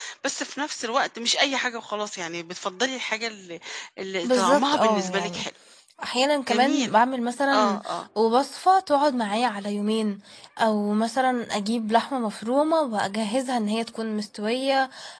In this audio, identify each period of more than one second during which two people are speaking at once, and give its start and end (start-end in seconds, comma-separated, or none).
4.2-5.4